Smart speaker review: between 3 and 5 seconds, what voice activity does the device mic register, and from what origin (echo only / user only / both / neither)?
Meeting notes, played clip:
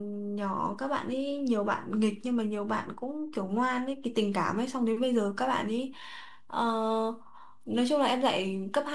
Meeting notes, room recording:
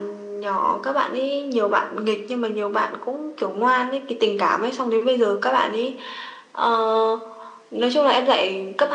echo only